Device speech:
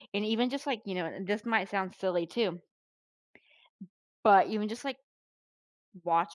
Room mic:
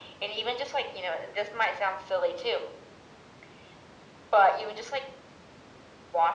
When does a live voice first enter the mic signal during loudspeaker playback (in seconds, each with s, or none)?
none